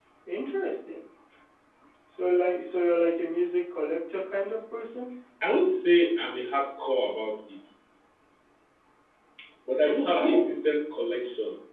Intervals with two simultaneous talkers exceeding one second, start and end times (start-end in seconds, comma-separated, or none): none